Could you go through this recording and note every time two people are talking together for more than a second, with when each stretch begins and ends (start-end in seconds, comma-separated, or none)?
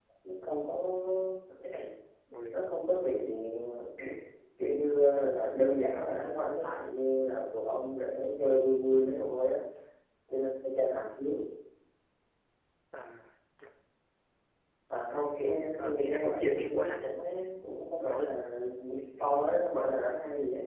15.1-17.1